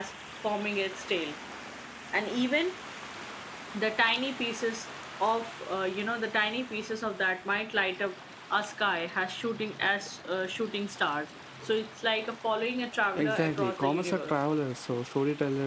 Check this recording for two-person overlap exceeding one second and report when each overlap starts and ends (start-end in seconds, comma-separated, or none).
13.2-14.4